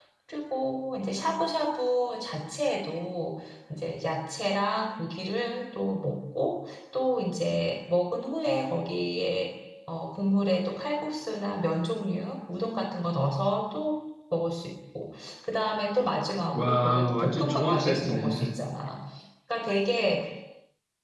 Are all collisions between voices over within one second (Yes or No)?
No